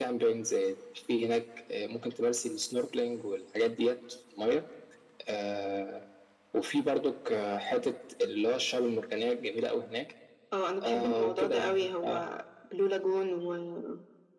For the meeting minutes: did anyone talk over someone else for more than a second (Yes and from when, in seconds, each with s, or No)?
Yes, from 10.8 s